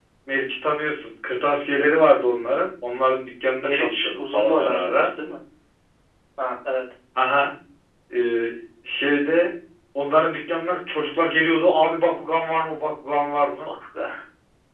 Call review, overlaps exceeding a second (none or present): present